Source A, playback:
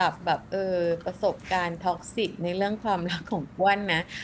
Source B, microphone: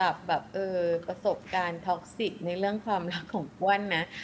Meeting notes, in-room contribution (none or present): none